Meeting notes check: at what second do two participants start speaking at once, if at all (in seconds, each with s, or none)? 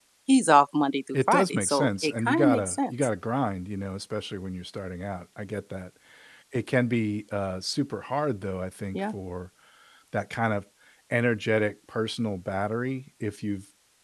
1.1 s